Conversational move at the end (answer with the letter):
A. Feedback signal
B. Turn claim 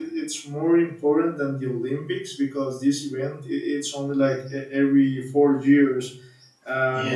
A